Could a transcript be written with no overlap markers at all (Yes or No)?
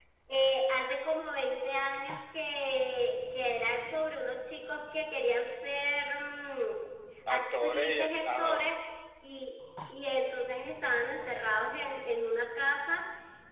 No